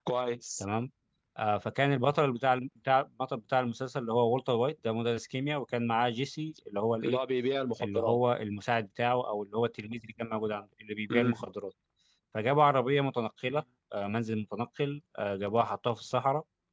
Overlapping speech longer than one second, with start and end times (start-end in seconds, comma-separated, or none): none